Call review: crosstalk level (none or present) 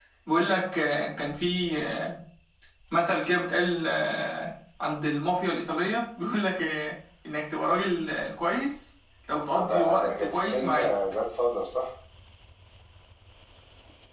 present